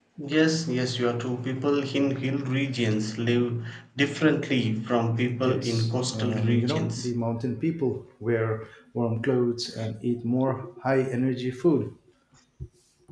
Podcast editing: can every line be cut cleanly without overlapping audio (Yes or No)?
No